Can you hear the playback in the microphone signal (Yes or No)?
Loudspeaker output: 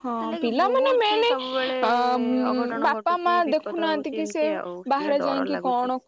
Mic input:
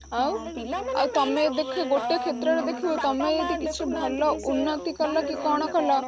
Yes